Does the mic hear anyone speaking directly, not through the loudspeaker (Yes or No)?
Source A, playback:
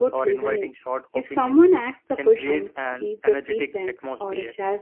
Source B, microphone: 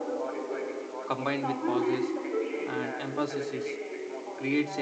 Yes